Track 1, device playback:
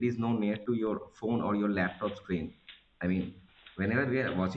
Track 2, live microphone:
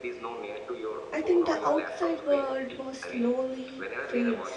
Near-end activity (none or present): present